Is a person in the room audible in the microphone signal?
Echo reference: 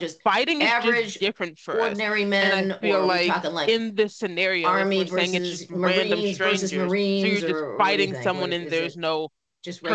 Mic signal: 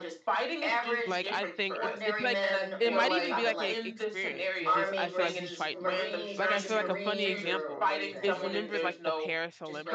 Yes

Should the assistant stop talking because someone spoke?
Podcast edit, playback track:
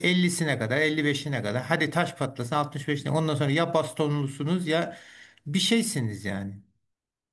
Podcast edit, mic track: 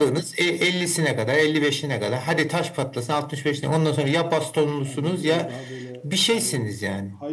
Yes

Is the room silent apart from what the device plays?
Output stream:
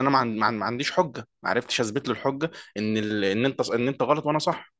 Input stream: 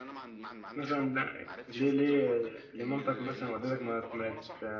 No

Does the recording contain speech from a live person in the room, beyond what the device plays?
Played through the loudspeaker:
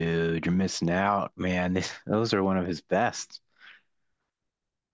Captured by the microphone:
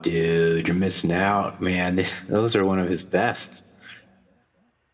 No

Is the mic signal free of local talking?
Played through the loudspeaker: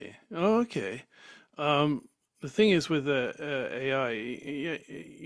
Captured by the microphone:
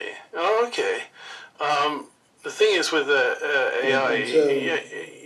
No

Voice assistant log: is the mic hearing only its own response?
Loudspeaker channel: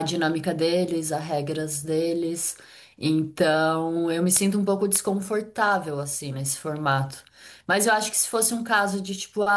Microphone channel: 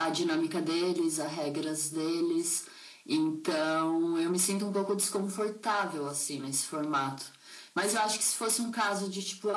Yes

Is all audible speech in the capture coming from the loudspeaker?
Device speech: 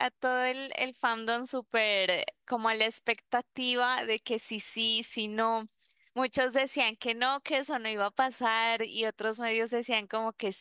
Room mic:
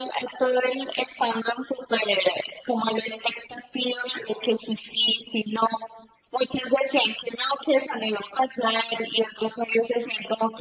Yes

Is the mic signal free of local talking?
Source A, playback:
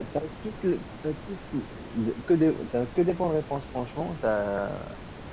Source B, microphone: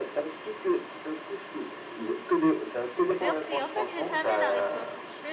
No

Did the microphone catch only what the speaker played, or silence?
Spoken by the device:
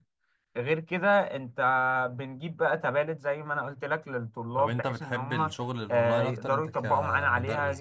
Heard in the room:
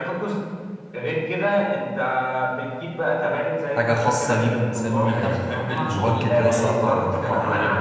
No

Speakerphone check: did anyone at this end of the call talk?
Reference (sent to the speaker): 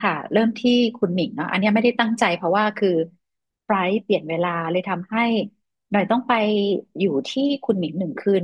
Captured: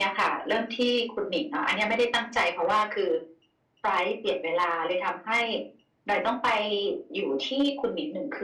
No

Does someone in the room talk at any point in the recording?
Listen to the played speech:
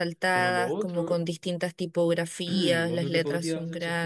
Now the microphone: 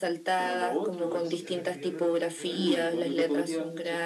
Yes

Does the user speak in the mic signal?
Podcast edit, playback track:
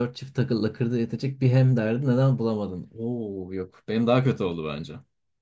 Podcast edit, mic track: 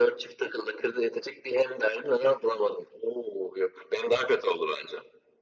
No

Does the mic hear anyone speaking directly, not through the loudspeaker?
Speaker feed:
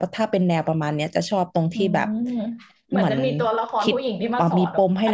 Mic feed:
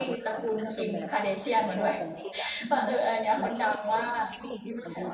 Yes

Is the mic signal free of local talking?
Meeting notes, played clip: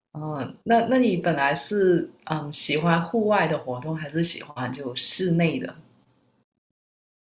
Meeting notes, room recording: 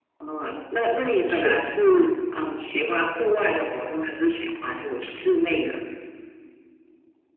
No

